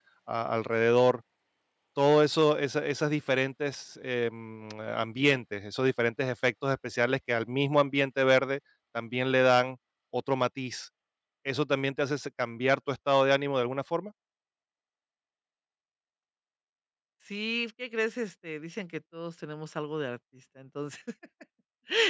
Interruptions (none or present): none